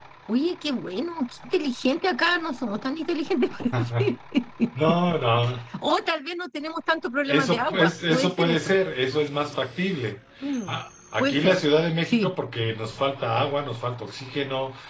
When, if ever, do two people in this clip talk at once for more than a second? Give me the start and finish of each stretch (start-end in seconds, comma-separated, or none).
7.3-8.7